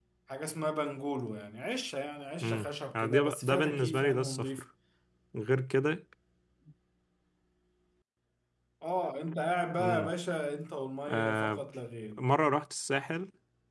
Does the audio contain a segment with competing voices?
Yes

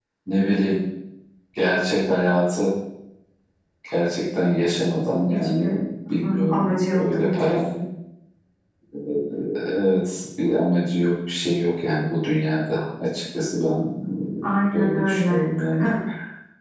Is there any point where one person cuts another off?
Yes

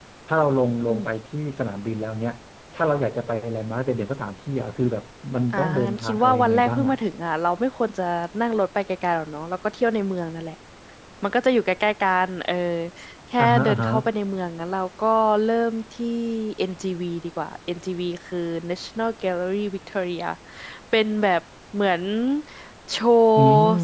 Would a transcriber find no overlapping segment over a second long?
No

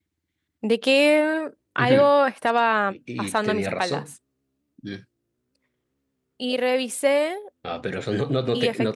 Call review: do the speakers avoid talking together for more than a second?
No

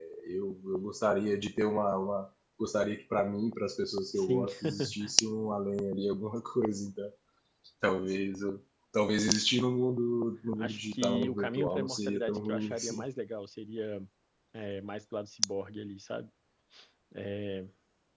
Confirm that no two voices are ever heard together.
No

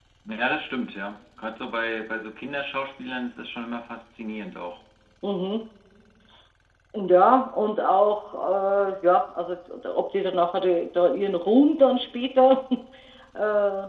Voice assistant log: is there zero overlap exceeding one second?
Yes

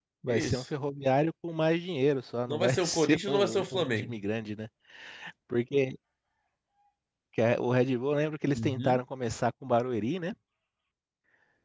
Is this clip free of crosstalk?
No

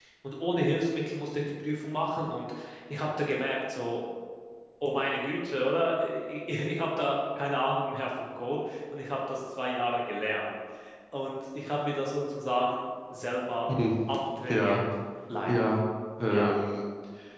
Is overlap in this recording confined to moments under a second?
Yes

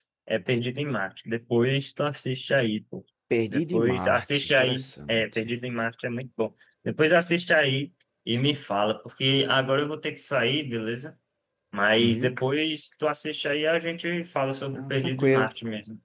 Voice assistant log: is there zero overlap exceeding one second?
No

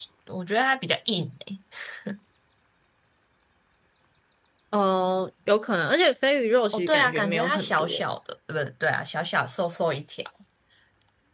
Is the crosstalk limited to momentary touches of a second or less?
No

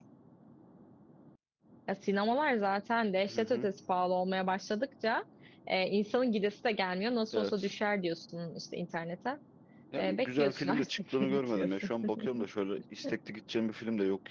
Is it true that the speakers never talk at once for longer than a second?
No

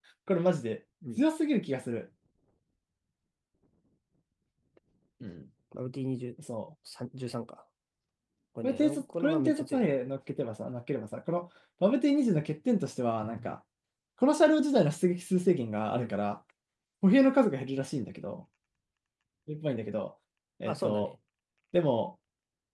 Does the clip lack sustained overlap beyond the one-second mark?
No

